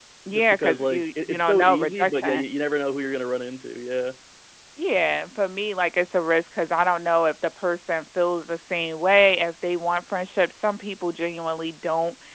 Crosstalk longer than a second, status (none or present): present